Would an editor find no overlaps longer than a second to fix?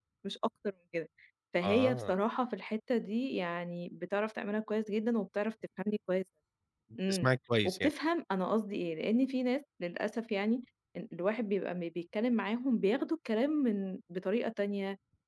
Yes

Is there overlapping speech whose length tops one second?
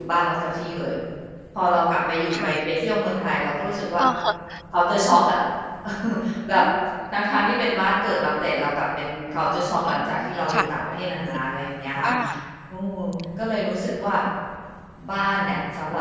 No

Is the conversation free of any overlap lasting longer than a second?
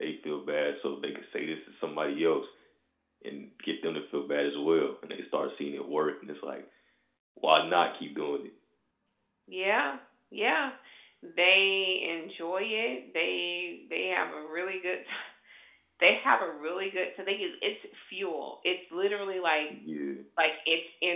Yes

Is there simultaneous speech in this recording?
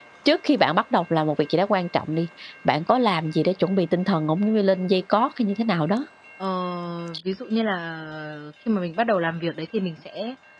No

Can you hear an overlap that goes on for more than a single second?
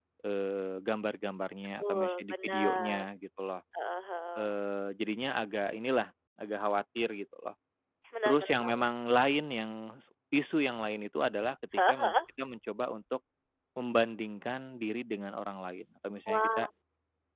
Yes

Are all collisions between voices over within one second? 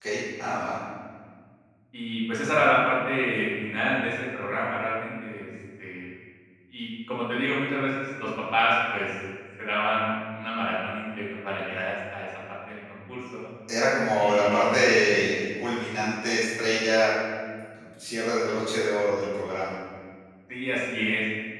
Yes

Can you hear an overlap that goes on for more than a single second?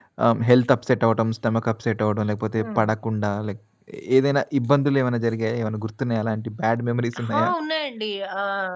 No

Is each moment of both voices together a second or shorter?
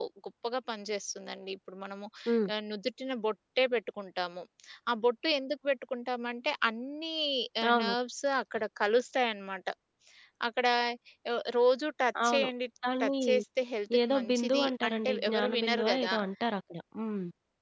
No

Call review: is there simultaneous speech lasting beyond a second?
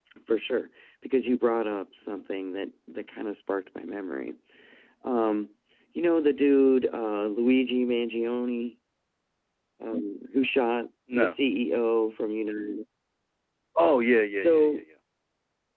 No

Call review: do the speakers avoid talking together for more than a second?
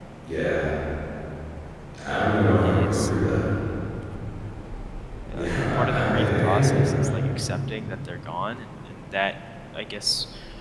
No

